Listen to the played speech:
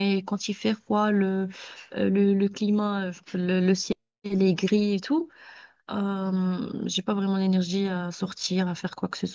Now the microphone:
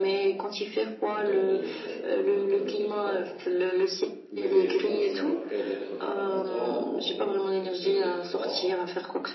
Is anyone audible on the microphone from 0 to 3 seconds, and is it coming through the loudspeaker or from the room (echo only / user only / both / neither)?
both